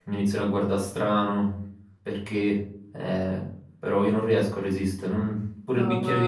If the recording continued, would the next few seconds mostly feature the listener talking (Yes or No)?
Yes